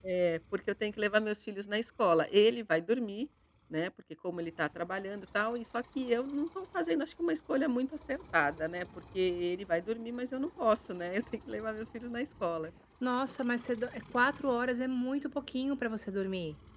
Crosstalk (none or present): none